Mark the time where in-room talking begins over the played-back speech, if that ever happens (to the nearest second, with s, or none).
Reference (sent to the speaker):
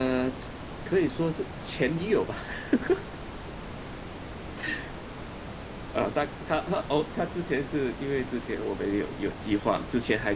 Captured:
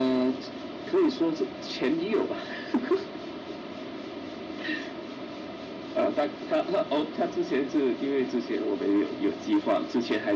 none